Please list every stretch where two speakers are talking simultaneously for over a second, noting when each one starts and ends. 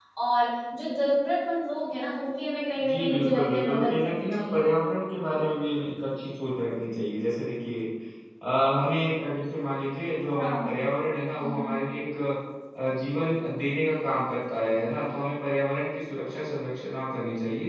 2.8-4.6

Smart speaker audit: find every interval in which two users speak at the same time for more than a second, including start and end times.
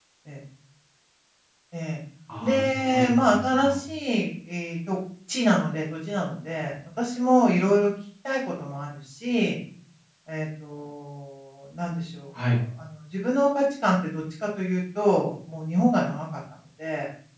2.4-3.8

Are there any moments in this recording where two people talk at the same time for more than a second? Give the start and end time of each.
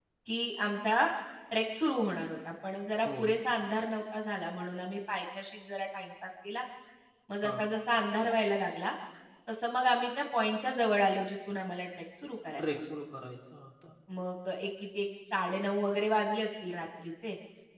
none

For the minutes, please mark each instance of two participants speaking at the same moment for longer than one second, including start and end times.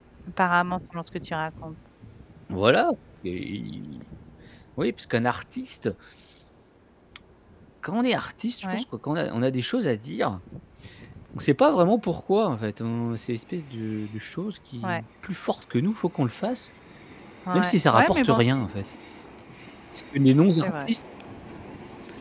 17.5-18.8

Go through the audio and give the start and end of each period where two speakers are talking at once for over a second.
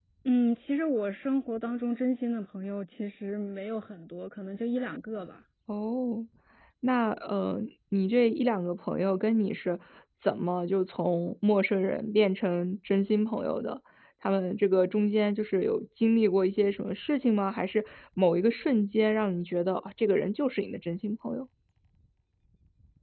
none

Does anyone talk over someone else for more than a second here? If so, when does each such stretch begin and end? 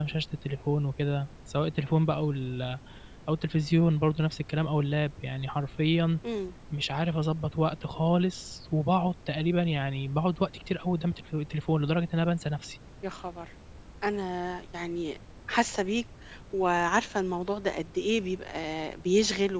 none

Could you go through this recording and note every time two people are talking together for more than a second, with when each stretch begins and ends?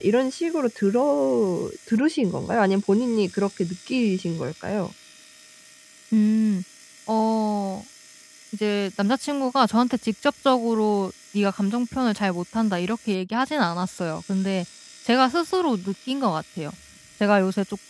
none

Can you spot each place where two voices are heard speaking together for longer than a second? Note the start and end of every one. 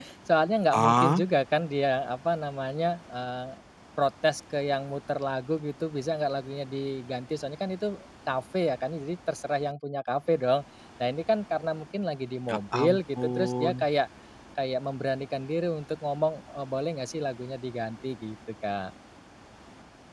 12.5-13.8

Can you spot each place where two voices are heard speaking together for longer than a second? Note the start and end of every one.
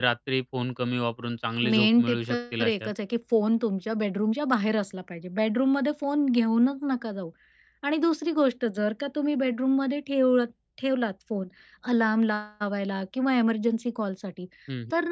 1.6-2.9

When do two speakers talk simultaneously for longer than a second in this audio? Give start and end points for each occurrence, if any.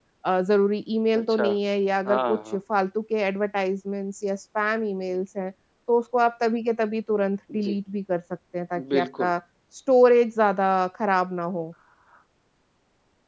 none

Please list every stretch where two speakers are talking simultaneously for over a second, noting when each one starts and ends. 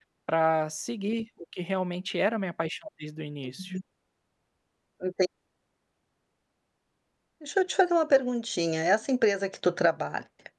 none

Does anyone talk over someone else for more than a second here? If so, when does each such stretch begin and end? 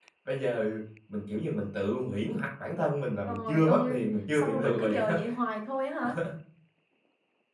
3.3-5.2

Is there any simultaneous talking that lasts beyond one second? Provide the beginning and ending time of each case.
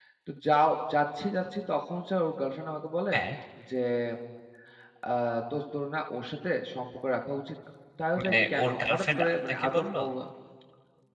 8.2-10.0

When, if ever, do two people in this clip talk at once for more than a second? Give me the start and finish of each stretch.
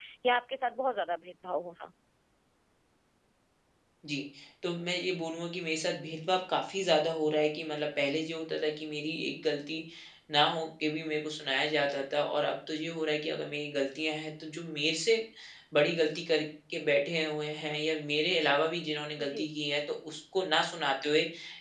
none

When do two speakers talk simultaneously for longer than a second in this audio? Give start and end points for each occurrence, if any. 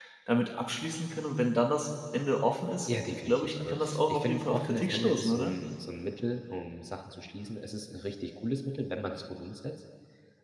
2.9-5.5

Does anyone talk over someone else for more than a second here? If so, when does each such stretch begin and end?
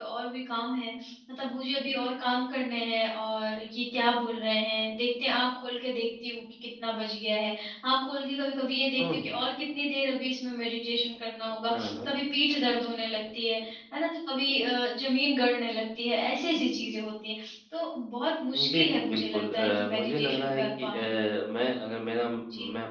18.5-21.1

